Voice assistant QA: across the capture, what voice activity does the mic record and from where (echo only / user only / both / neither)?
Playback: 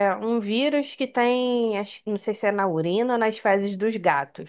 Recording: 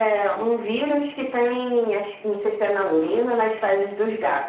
echo only